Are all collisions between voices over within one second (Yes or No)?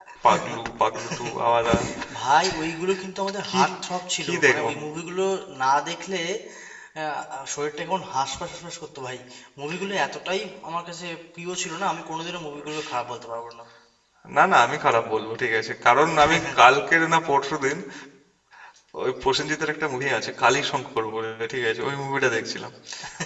Yes